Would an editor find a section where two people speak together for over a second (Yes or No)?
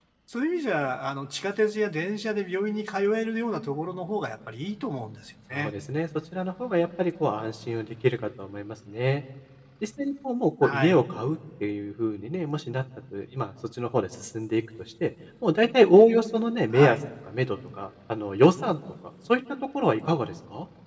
No